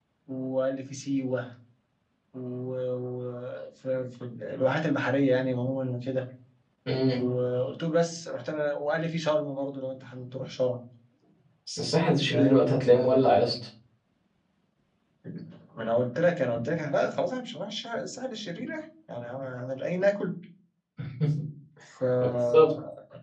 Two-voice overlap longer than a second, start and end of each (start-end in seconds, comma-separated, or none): 12.2-13.5